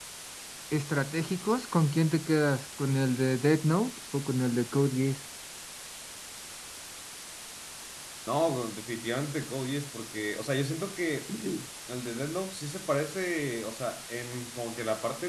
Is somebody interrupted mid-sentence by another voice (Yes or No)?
No